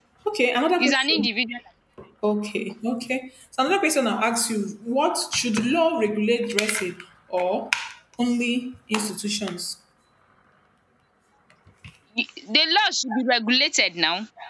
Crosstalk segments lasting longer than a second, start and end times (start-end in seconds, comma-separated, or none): none